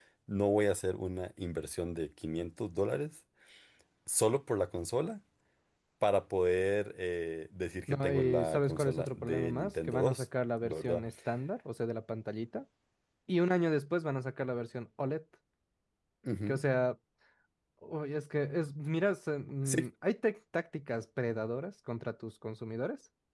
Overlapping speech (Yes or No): Yes